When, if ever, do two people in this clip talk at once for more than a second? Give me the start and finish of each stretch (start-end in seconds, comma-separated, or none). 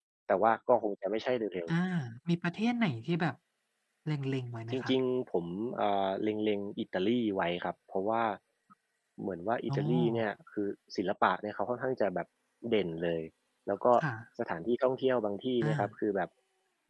none